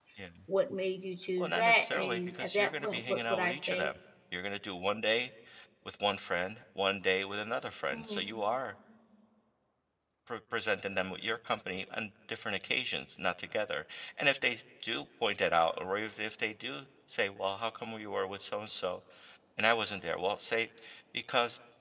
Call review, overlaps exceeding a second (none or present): present